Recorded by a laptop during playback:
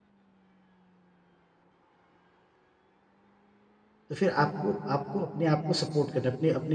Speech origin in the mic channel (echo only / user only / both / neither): user only